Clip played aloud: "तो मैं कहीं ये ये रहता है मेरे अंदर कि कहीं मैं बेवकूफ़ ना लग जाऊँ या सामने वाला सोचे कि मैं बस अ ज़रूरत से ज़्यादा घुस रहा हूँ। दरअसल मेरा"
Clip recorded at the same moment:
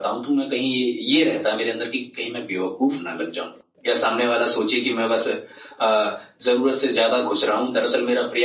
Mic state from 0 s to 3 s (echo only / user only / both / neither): echo only